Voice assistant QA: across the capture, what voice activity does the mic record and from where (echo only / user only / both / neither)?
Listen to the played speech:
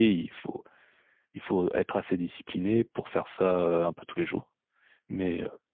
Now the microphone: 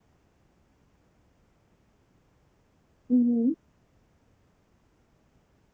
user only